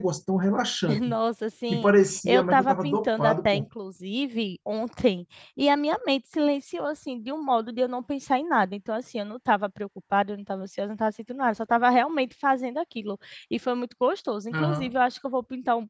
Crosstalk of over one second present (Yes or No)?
Yes